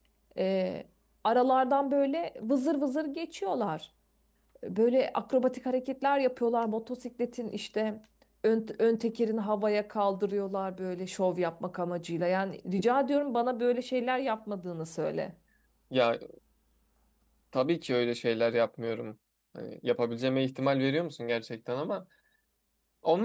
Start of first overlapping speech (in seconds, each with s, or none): none